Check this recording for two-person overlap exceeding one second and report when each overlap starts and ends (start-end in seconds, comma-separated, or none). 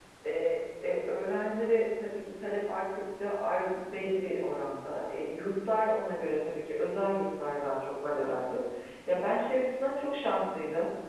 none